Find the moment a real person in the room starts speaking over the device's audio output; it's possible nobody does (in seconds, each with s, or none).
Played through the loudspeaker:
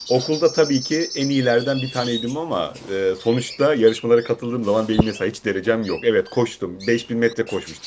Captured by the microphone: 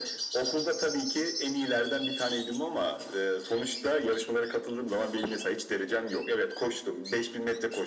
none